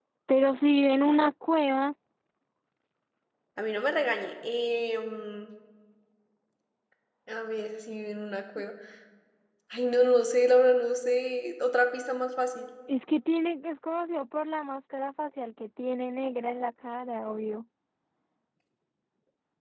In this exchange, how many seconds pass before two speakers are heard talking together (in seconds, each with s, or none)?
none